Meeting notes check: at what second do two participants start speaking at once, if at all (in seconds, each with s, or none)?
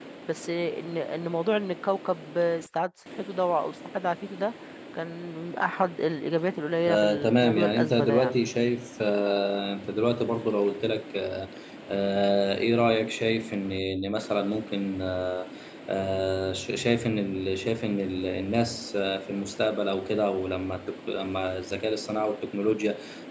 6.9 s